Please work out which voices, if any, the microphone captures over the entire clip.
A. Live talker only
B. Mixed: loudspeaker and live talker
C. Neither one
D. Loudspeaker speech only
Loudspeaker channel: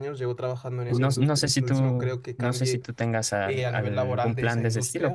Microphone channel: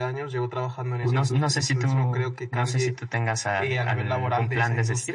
D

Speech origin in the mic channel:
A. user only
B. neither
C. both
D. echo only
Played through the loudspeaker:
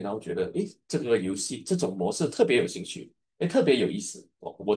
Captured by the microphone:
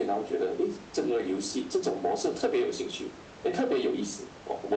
D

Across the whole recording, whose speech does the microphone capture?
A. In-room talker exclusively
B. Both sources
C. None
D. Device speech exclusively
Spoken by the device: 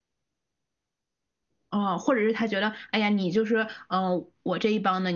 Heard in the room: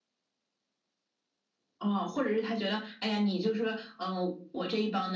D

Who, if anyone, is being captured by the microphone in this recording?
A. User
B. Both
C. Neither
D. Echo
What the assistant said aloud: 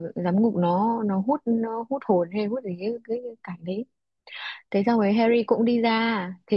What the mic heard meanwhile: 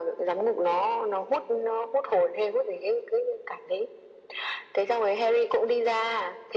D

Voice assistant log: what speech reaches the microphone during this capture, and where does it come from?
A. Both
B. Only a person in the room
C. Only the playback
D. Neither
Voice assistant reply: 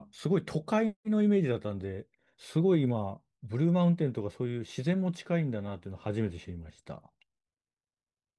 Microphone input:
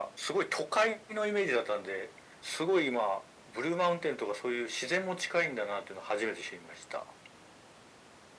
C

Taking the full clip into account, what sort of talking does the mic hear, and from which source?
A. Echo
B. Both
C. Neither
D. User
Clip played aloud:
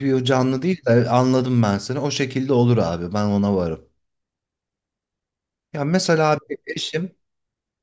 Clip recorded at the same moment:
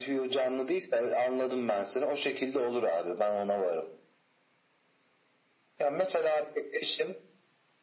A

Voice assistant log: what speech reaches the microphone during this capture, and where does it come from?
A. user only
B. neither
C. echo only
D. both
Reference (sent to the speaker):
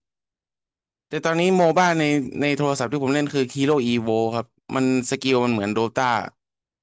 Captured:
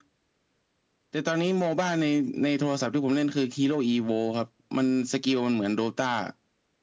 C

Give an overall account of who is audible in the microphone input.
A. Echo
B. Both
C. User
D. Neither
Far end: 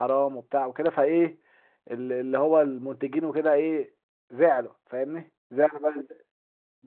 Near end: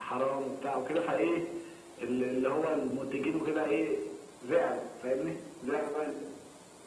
A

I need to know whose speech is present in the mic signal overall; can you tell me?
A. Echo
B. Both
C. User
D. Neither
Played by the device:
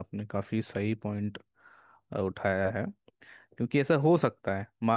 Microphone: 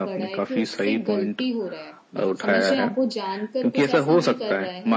B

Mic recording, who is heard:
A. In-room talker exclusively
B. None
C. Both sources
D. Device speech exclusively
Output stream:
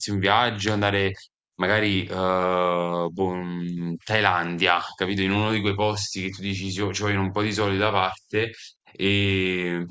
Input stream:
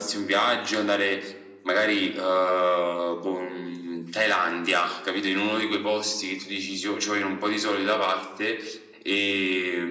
D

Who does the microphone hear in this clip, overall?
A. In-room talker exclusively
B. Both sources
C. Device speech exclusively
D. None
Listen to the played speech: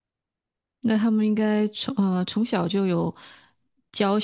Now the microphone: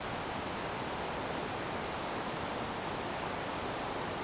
D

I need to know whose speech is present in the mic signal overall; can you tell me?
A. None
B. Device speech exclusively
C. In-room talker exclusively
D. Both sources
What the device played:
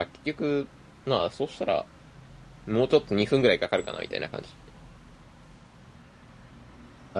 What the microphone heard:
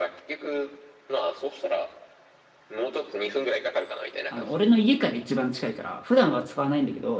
D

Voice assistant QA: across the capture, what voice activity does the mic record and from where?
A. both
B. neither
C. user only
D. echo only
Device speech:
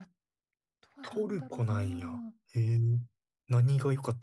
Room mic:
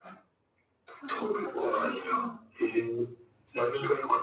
D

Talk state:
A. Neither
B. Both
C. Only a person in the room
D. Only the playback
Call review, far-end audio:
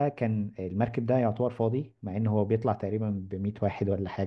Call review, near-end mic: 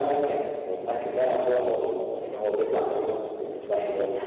D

